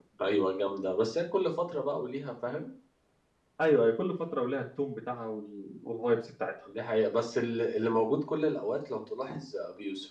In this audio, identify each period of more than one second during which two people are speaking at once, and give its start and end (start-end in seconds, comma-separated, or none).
none